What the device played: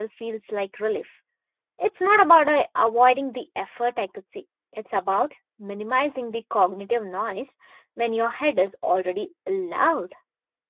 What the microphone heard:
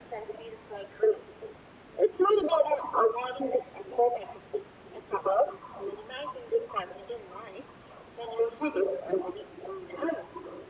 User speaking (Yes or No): No